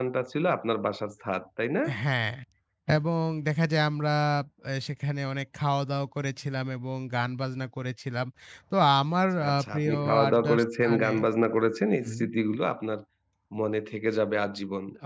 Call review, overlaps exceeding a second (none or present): present